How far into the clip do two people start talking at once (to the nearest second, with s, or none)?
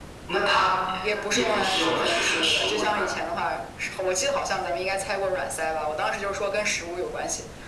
1 s